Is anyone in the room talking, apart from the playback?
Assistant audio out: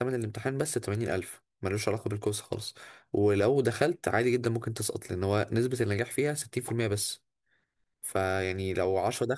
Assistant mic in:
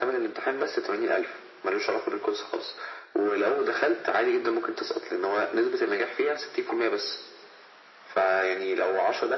No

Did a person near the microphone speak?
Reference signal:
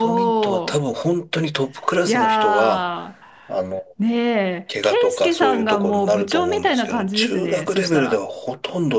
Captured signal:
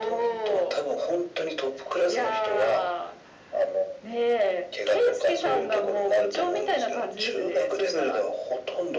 No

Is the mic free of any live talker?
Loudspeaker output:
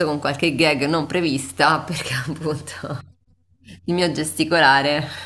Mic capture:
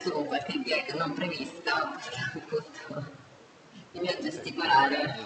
No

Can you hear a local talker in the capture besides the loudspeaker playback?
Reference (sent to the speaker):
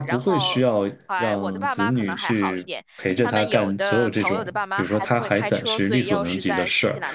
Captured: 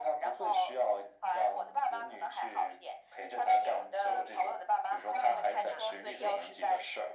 Yes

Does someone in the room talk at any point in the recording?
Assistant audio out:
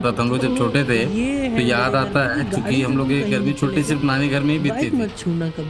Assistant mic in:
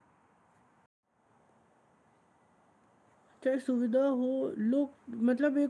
Yes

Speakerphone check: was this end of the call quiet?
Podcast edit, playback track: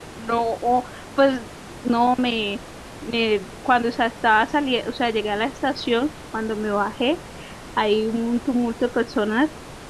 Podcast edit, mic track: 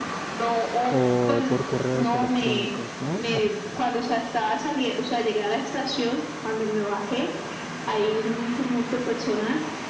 No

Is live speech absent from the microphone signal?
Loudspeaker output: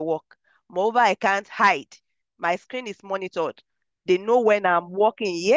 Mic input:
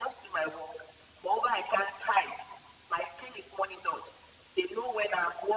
Yes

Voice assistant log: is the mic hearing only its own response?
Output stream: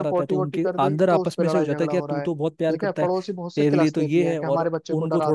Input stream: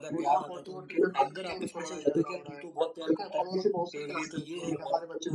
Yes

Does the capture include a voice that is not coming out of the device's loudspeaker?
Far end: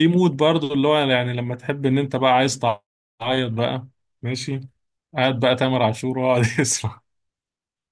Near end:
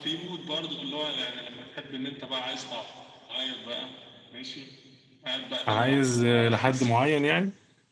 Yes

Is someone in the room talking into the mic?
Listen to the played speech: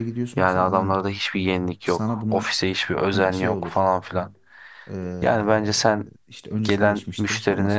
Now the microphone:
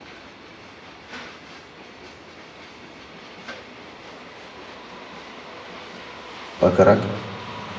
Yes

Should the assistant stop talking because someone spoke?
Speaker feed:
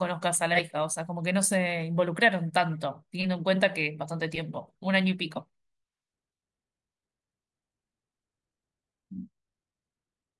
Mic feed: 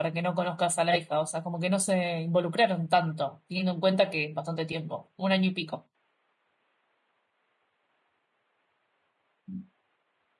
No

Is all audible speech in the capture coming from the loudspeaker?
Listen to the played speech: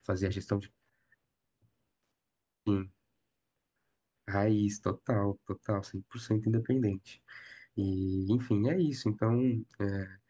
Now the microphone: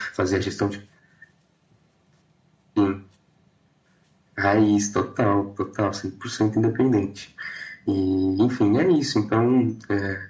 Yes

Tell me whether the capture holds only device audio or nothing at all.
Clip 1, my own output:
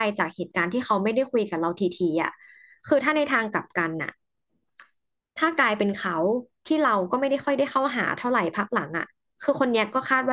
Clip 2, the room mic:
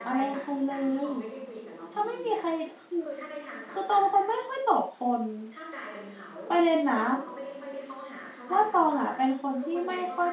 No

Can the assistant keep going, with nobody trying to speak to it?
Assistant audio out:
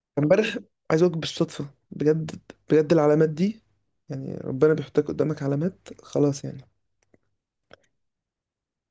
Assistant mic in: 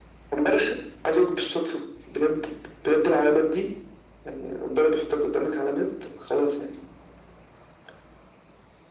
Yes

